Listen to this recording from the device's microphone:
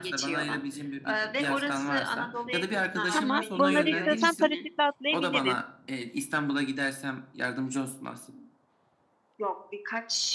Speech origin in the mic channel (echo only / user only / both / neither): both